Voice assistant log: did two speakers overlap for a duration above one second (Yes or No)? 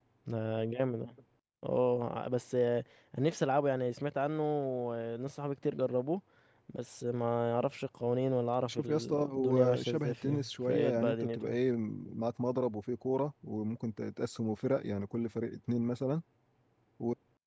Yes